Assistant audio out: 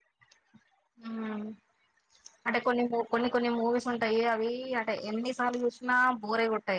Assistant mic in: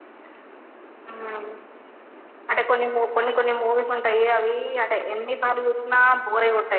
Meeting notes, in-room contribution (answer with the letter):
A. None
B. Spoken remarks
A